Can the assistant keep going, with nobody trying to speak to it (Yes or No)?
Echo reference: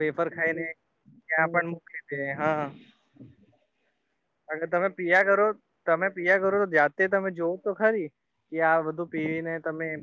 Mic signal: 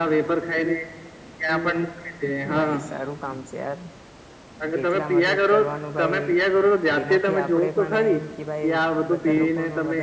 No